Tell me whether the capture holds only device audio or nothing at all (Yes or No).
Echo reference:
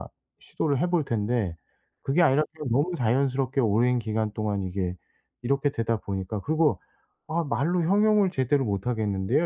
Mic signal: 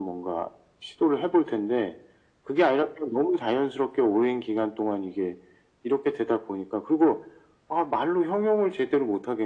Yes